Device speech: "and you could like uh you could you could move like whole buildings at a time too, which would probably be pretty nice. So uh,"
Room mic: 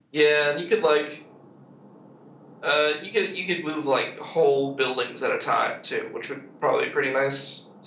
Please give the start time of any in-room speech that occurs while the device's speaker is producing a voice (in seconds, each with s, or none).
none